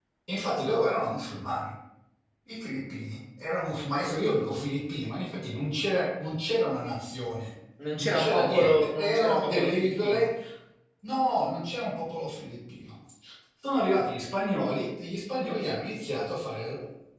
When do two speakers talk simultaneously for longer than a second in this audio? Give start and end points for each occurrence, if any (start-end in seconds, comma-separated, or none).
8.0-10.3